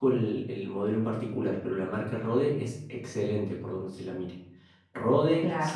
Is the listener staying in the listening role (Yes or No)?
Yes